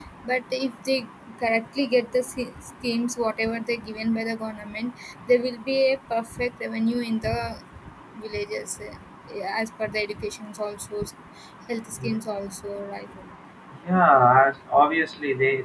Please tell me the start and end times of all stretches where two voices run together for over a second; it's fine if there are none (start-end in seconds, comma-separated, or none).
none